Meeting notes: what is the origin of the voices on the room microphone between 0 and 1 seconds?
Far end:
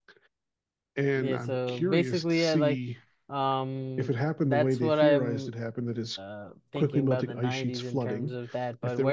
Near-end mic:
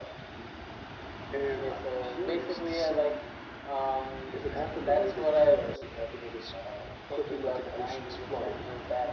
neither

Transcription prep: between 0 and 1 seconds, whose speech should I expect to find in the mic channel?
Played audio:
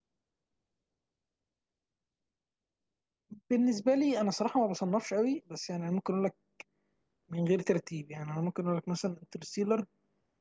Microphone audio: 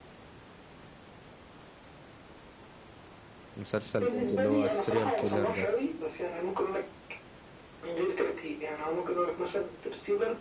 neither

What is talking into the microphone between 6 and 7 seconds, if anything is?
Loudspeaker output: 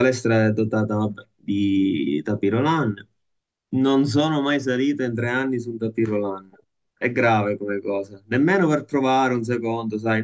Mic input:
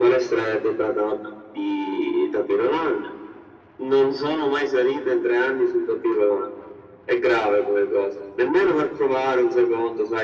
echo only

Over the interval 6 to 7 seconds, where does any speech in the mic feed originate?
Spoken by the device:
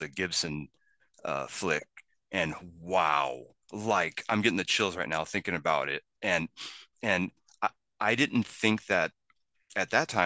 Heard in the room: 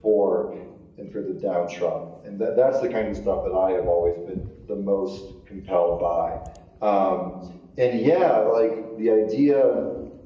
user only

